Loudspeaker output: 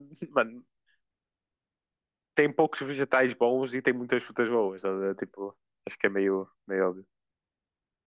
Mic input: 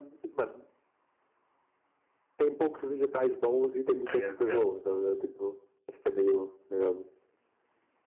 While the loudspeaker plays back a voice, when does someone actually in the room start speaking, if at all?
4.0 s

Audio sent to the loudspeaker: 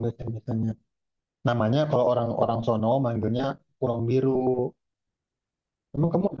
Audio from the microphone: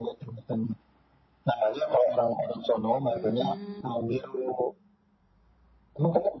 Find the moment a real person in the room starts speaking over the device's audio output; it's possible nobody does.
3.1 s

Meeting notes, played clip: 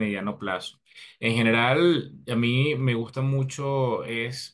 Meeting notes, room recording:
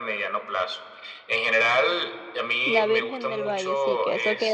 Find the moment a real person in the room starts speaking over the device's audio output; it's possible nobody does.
2.7 s

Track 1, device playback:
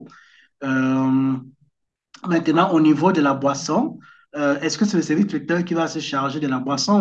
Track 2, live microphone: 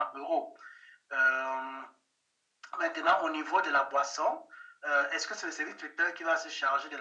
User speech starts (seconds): none

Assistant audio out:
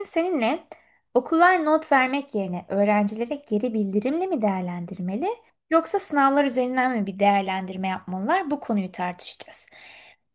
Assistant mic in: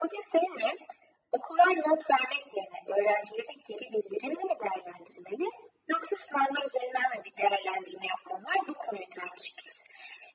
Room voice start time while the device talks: none

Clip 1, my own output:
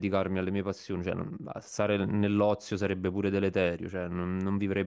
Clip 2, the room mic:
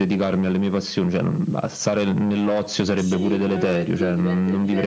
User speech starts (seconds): 2.9 s

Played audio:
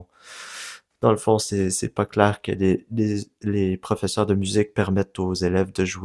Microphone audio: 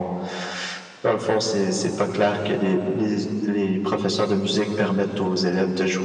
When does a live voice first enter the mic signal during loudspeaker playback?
none

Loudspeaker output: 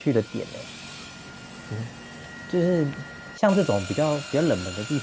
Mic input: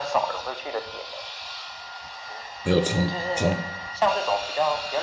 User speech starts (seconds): 2.6 s

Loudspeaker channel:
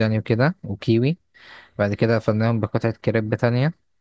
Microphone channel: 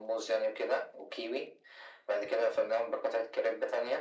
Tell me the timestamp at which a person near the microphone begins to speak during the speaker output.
none

